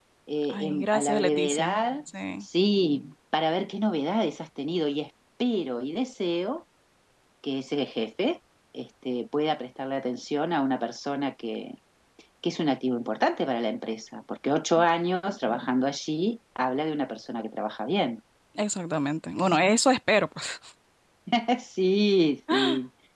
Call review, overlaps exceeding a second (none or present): present